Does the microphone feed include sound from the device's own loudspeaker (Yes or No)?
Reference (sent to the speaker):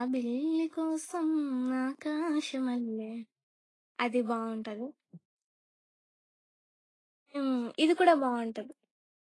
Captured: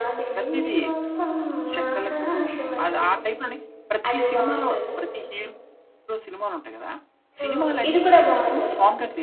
Yes